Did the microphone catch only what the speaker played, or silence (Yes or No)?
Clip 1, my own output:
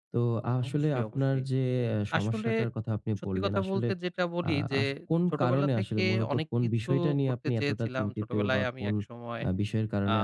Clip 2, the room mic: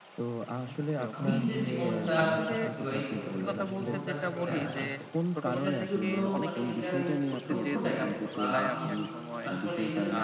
No